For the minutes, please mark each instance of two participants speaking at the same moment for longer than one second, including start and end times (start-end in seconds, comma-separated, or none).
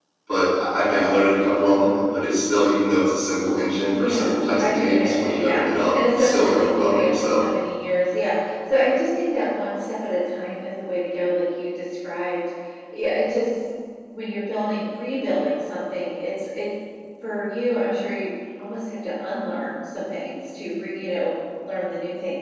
3.9-7.4